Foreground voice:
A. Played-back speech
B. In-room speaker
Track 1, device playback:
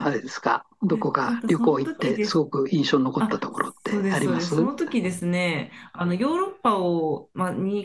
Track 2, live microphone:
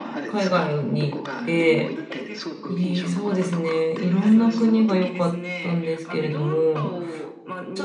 B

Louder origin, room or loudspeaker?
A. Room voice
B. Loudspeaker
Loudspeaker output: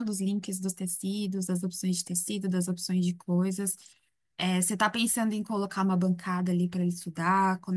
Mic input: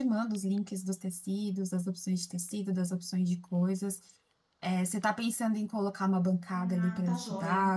B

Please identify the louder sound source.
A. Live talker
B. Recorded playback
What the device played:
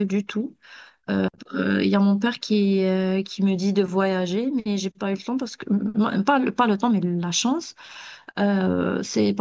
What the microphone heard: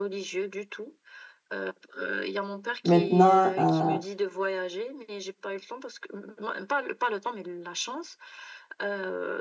A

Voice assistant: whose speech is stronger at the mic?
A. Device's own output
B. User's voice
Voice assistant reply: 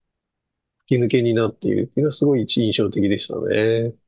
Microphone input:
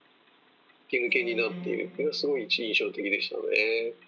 A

